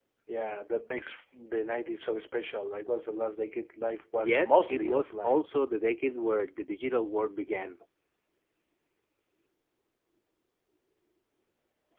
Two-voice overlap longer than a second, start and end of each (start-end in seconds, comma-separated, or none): 4.2-5.5